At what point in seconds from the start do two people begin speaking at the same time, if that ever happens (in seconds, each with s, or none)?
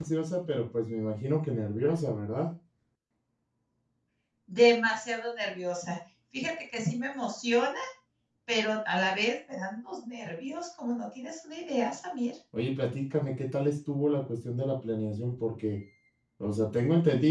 none